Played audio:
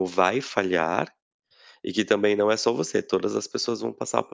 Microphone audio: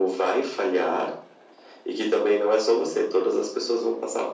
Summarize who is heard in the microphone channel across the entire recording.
echo only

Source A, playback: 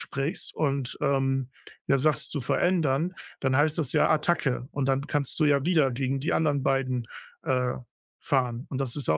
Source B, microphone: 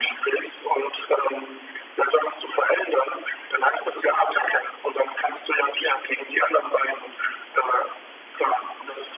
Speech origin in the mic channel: echo only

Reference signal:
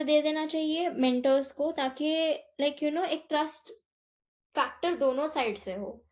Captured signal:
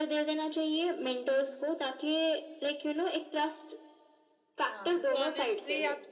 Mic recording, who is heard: both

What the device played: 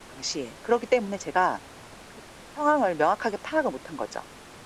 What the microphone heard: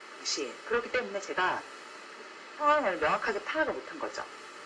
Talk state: echo only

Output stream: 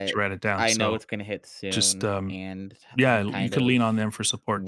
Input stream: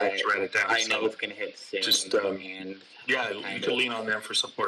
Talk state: echo only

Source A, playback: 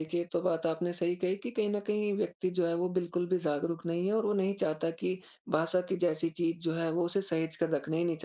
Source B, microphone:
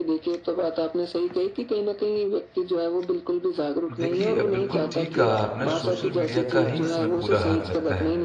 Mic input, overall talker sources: both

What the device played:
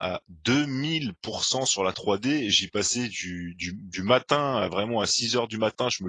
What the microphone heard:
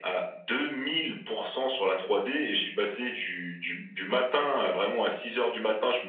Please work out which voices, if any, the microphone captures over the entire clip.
echo only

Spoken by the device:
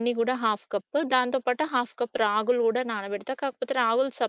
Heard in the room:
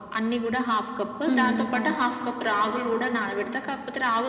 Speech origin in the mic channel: both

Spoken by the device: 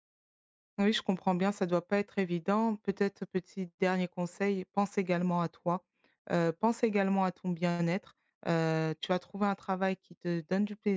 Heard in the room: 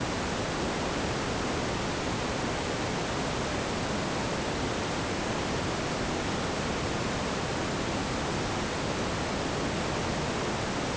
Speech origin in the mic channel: neither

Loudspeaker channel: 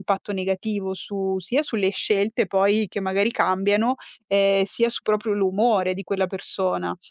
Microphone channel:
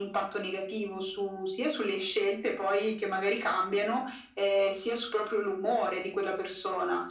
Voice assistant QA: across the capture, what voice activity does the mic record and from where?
echo only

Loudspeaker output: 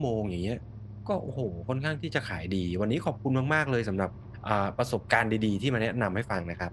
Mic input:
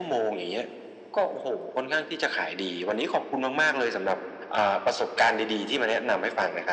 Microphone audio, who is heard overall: echo only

